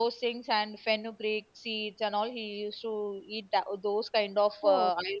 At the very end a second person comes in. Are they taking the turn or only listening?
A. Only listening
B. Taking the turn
A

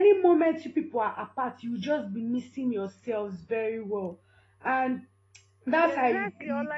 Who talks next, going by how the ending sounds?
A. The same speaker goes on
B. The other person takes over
B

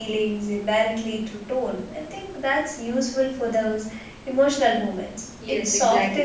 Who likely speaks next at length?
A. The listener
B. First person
A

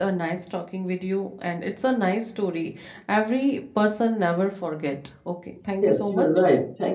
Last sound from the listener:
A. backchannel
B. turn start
B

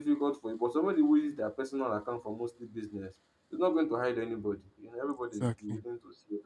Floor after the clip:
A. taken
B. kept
B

